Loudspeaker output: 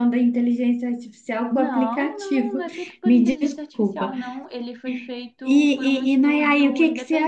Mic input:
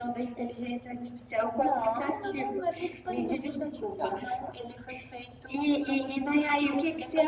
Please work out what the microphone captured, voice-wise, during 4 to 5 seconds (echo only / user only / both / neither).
echo only